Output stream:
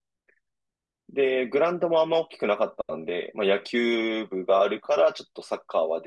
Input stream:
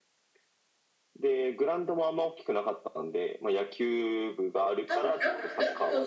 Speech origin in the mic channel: both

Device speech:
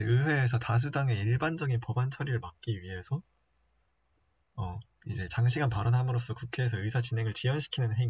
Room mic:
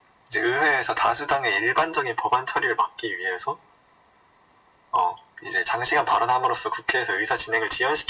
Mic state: echo only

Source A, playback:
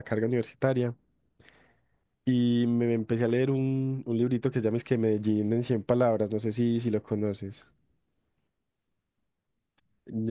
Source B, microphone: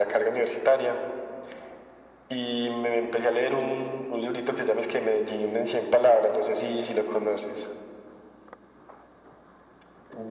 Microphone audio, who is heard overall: echo only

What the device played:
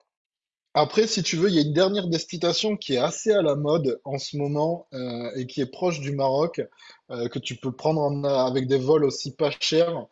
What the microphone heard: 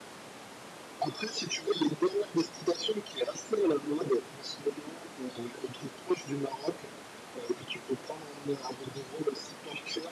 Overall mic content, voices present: echo only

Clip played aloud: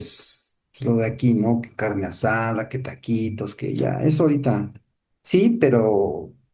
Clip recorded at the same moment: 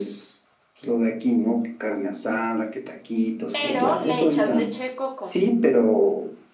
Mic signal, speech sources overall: both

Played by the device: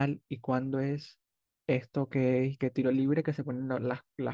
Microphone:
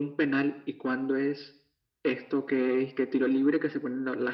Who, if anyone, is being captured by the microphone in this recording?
echo only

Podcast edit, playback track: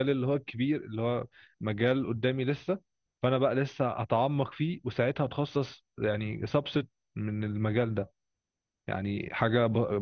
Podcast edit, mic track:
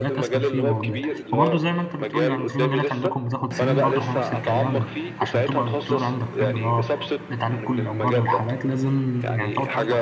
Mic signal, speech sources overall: both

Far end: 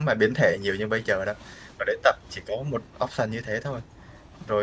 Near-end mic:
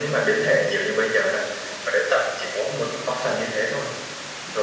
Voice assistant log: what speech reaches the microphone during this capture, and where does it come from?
echo only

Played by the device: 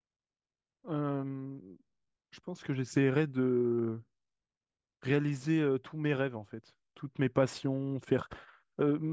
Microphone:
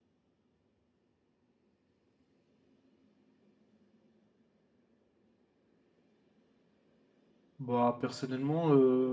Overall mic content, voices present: user only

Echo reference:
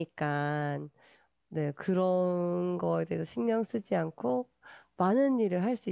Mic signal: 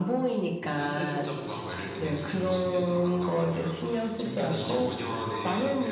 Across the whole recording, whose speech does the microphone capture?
both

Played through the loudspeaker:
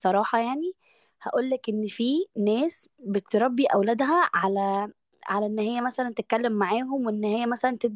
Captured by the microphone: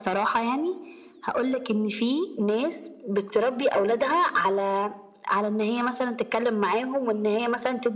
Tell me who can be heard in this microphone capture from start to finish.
echo only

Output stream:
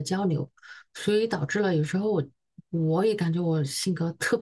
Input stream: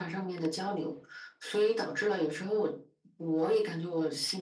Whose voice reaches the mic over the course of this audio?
echo only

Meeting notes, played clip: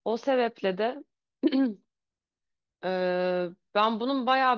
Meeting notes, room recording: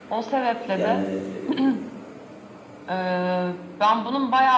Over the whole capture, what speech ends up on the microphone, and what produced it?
both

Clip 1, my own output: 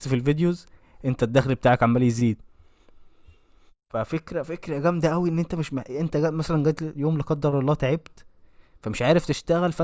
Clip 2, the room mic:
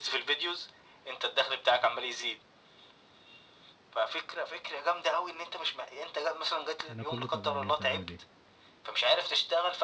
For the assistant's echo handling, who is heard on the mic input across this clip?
both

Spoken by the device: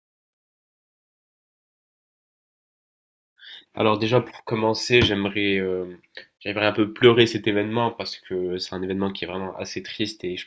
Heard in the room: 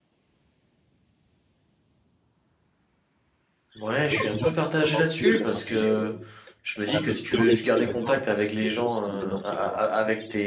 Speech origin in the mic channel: both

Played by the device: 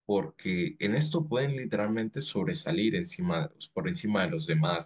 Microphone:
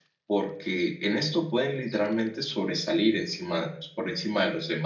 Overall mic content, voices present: echo only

